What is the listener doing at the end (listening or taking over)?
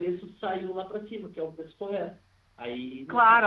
taking over